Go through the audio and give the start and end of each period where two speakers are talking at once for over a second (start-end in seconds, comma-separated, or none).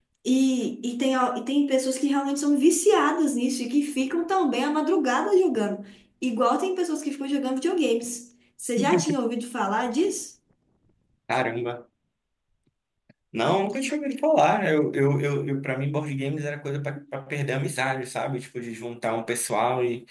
none